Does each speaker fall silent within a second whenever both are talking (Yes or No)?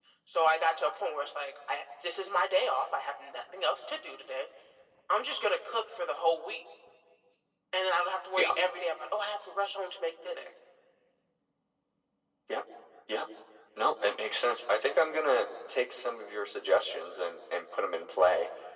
Yes